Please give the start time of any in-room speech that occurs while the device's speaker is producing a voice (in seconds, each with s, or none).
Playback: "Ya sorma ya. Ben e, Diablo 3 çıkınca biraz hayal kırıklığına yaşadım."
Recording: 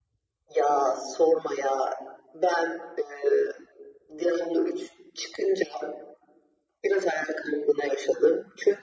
none